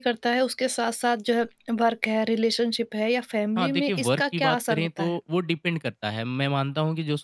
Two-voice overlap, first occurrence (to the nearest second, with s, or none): 4 s